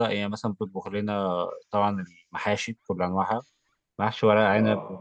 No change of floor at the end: Yes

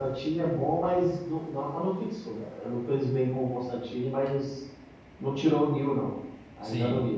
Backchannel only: No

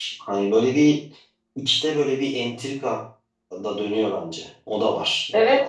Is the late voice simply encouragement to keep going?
No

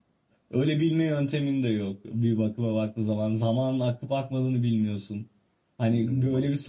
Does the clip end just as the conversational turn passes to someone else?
No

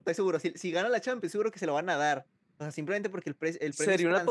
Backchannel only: No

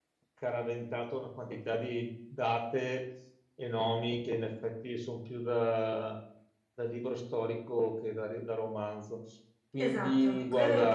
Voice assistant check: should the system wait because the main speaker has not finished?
No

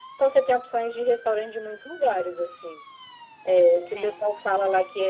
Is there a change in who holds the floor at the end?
No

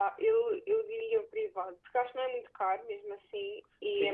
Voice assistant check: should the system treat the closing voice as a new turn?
Yes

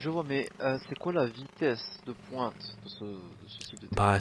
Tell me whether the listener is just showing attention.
No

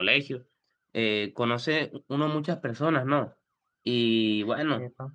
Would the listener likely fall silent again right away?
Yes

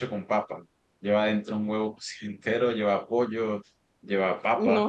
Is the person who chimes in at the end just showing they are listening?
No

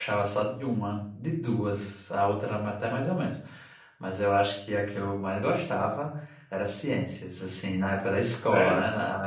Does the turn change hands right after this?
No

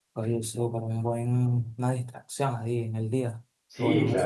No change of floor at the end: No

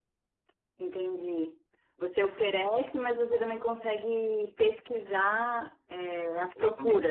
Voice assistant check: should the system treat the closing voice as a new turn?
Yes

